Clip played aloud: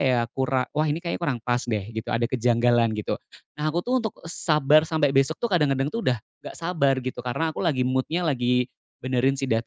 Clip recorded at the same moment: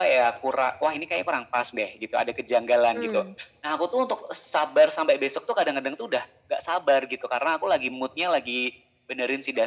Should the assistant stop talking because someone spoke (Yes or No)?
Yes